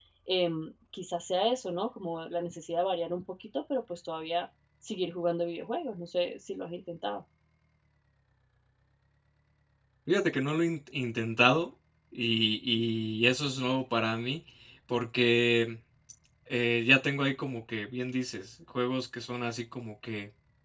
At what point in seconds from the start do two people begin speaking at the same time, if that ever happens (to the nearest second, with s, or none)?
none